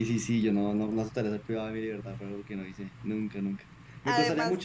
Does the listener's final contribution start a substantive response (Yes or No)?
No